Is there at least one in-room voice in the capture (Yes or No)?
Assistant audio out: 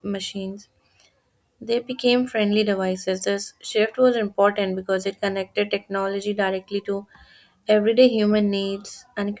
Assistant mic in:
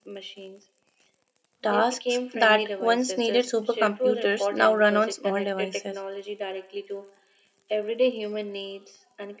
Yes